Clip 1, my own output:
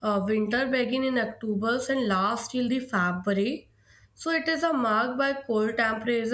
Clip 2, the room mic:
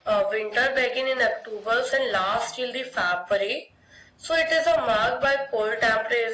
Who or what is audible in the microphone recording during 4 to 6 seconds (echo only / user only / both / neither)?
echo only